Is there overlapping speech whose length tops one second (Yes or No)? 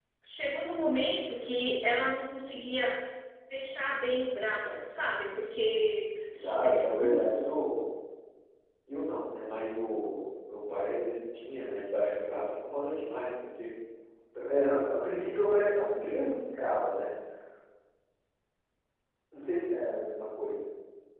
Yes